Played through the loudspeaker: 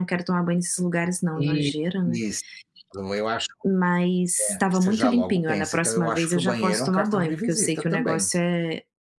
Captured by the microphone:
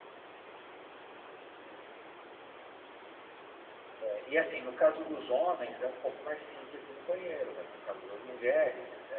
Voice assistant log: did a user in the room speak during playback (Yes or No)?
Yes